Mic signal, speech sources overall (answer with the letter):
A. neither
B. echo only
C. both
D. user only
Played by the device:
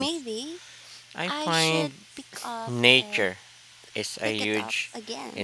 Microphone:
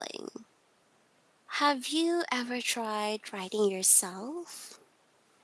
D